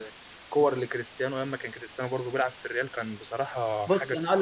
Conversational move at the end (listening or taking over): taking over